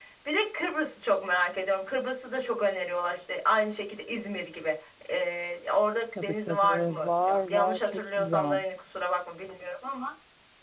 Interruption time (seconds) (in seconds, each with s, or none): 6.2 s